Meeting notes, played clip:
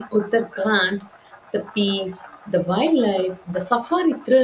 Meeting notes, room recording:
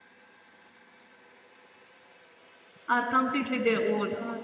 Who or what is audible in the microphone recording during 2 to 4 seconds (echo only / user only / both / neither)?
user only